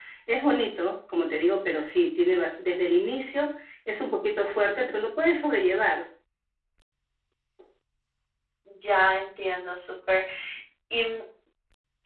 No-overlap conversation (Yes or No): Yes